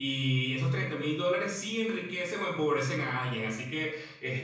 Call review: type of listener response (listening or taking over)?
listening